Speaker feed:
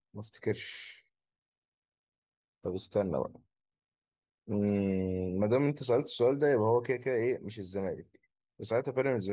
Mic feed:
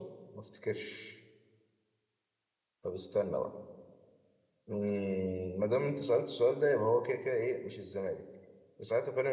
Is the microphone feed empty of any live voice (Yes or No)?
Yes